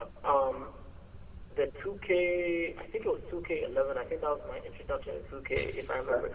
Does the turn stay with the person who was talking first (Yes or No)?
No